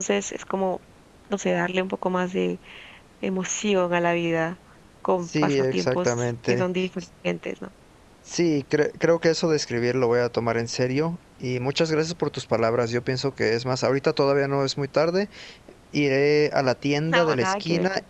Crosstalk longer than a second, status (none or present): present